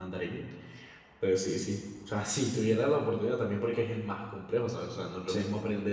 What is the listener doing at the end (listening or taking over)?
listening